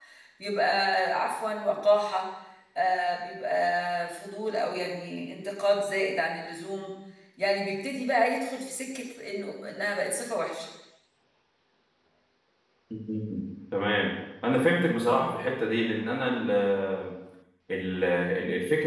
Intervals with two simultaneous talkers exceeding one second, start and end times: none

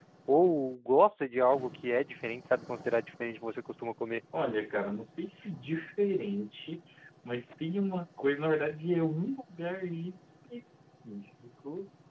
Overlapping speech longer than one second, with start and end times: none

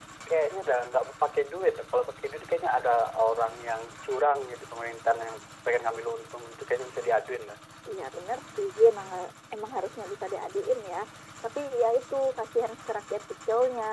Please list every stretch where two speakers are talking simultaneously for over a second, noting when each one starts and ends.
none

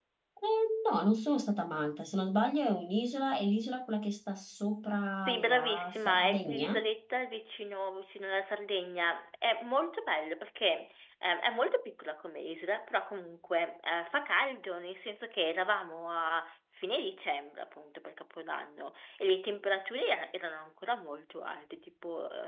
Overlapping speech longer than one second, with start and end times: 5.2-6.8

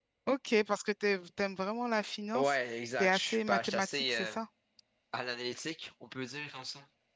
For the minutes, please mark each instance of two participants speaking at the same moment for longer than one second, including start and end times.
3.0-4.4

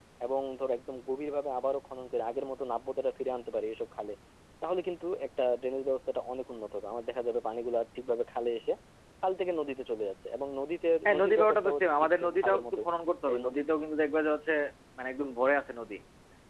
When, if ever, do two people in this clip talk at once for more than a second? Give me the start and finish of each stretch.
11.1-12.8

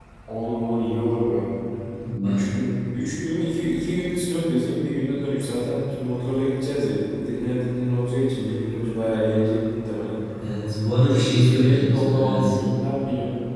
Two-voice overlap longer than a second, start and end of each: 11.0-12.6

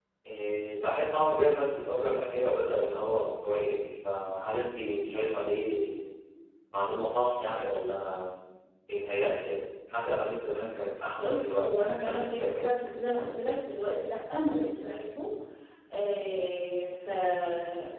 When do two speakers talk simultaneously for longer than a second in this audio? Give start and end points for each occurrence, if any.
11.2-12.8

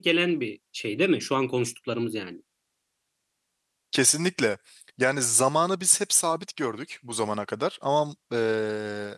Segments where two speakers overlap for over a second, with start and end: none

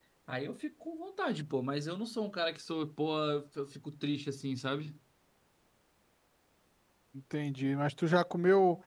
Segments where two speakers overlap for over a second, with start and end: none

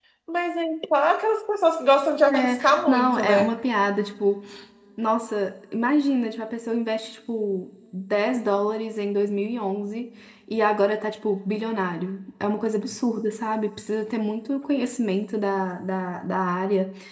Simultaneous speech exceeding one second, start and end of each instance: 2.3-3.6

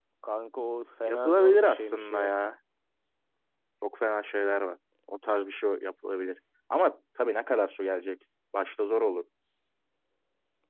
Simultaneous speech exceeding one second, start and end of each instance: 1.1-2.3

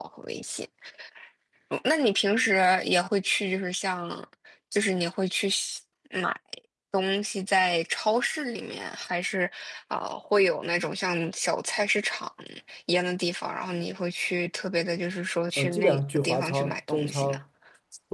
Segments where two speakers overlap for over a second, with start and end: 15.6-17.4

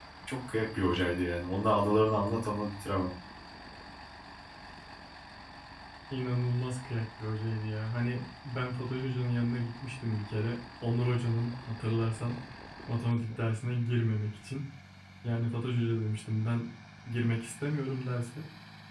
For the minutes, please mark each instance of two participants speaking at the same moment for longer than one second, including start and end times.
none

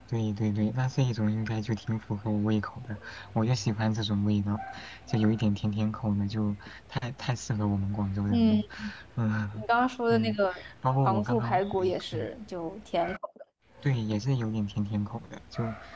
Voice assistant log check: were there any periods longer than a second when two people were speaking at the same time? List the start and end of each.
11.0-12.3

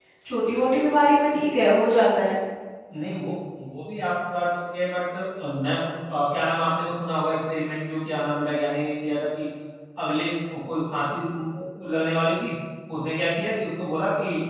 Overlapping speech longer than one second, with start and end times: none

